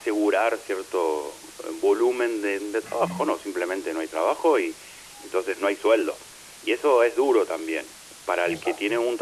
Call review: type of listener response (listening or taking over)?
listening